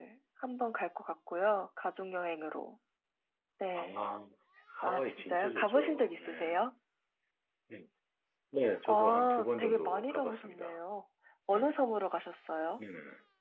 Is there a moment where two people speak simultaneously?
Yes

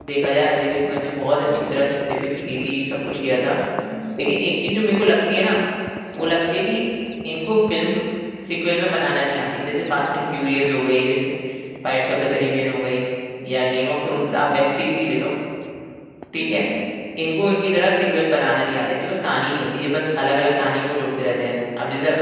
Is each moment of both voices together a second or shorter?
Yes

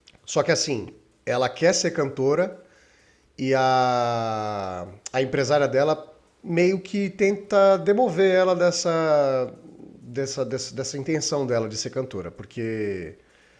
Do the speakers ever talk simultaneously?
No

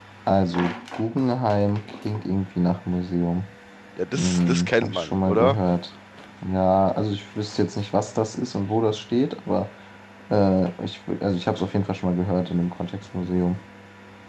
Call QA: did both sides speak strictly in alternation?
No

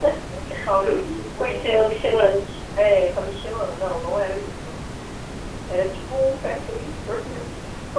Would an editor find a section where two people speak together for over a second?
Yes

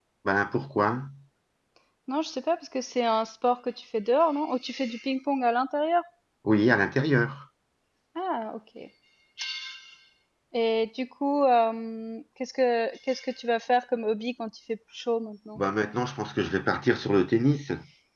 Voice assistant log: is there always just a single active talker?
Yes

